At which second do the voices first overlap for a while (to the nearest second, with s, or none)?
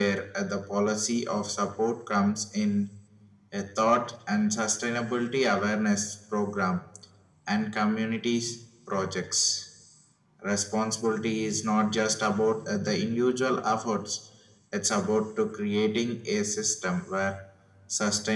none